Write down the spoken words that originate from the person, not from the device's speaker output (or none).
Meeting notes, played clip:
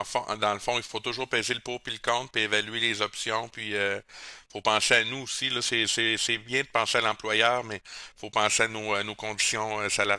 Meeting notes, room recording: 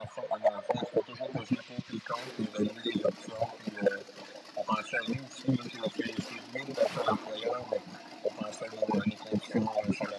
none